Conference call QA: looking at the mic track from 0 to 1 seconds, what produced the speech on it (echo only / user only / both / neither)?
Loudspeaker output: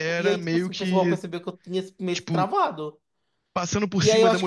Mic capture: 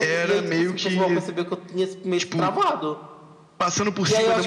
echo only